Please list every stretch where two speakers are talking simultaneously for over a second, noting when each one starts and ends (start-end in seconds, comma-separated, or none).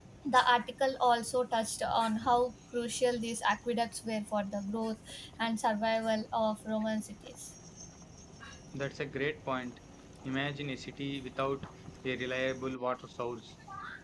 none